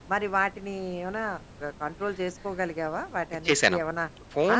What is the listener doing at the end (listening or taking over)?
taking over